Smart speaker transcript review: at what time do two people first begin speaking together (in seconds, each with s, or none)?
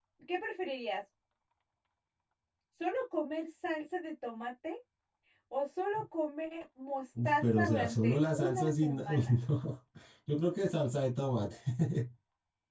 7.2 s